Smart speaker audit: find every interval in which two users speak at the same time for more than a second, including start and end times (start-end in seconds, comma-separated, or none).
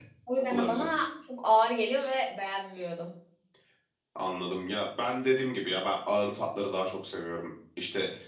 none